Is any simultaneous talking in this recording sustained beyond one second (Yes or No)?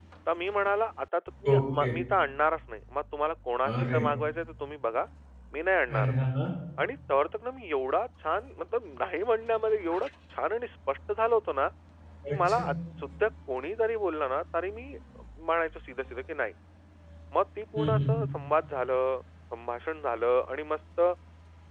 No